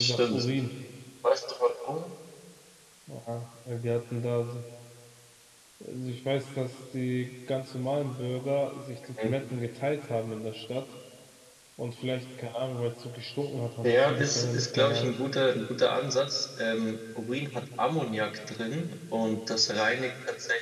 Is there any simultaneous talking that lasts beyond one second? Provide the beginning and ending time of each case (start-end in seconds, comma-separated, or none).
13.8-15.1